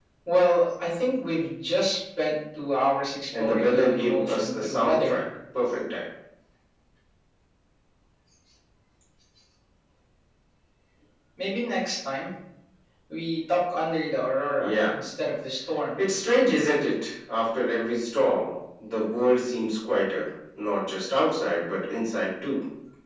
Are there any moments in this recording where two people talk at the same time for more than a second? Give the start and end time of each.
3.4-5.2

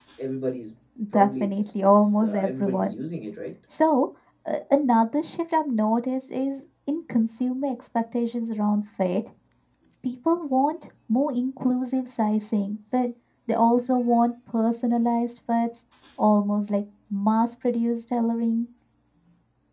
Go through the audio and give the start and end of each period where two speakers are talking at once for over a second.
1.1-2.9

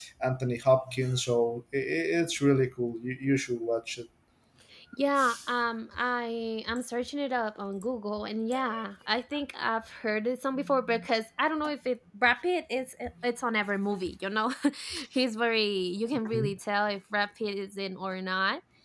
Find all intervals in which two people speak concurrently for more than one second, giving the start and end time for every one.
none

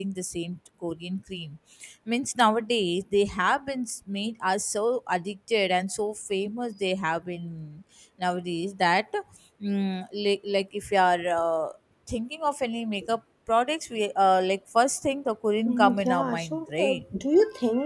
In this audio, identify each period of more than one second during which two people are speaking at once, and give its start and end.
15.7-17.0

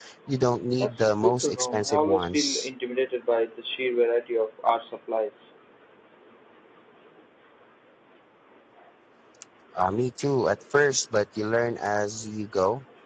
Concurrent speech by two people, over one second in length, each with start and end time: 0.8-2.7

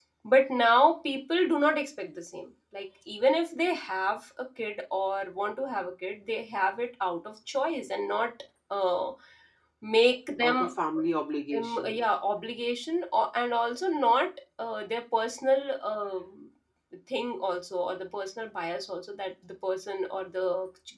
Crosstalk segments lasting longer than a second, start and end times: none

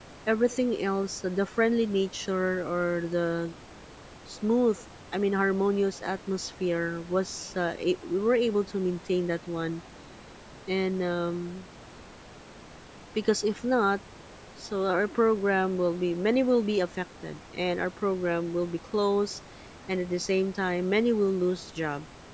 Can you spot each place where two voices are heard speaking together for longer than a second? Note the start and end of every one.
none

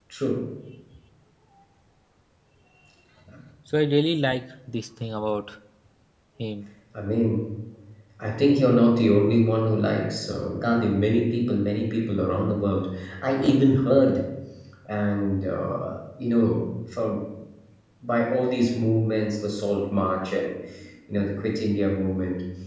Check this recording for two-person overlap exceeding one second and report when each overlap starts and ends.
none

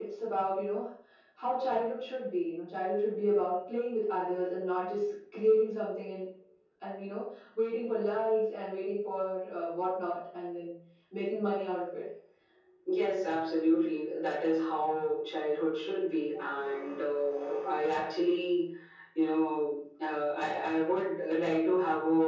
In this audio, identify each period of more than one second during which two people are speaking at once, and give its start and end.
none

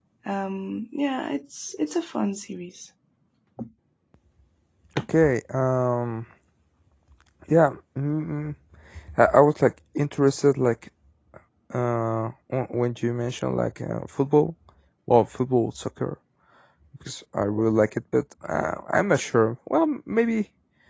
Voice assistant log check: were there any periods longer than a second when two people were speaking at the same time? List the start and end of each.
none

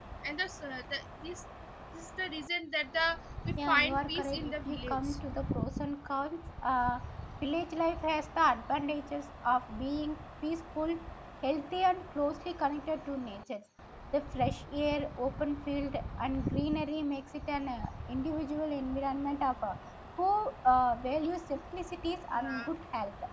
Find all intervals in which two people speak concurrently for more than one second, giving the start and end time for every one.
3.7-5.0

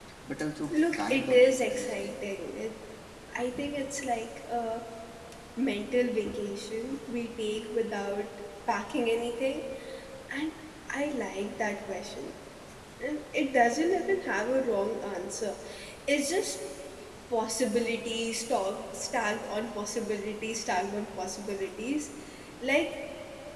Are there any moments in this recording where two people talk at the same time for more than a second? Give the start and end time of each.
0.7-2.1

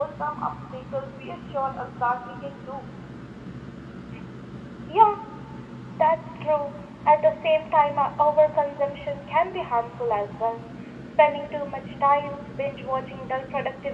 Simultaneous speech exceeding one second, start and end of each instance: none

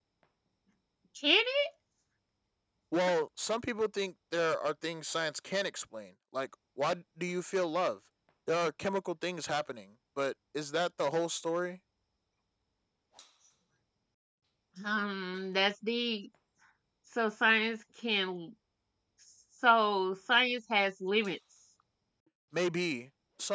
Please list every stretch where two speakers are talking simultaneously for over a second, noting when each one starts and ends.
none

